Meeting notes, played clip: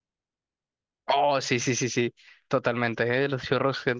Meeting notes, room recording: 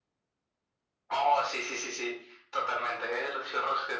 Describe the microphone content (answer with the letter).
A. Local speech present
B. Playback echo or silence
B